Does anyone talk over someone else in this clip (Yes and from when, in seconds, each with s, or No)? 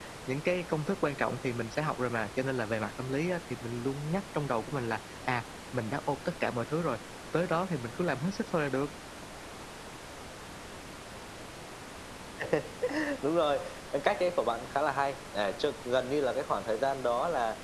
No